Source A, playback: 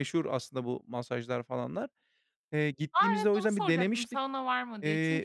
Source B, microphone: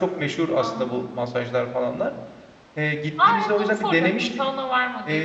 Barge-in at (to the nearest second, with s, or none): 1 s